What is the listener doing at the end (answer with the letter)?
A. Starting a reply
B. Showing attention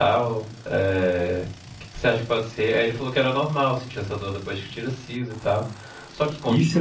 A